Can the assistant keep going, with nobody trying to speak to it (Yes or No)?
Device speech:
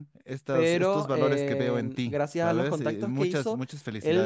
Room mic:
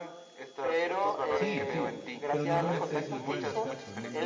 No